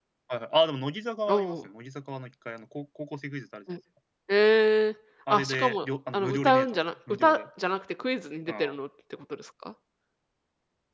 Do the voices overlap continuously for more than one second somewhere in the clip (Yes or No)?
Yes